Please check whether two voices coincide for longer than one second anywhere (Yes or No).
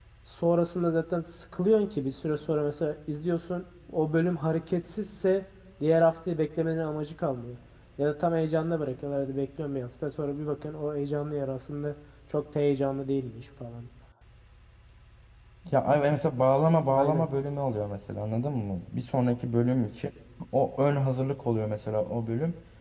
No